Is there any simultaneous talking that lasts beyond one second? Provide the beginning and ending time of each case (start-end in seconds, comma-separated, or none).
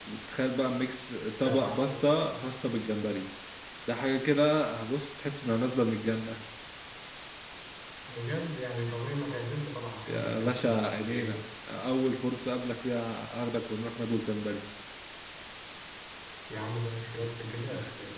10.1-11.3